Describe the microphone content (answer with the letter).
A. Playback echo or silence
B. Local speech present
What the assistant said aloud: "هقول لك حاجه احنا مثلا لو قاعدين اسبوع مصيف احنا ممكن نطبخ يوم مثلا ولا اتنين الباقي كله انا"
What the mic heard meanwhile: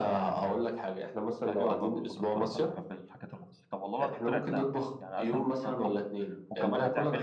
B